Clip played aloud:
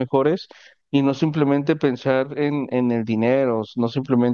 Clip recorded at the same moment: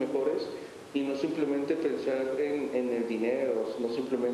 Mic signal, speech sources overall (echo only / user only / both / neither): echo only